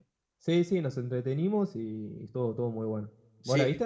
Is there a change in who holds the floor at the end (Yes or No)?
Yes